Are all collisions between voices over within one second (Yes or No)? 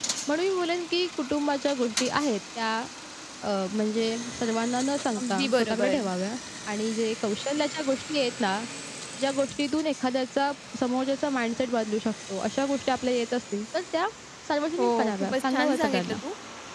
No